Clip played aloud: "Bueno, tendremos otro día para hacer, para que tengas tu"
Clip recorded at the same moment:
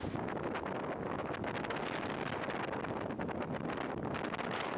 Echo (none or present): none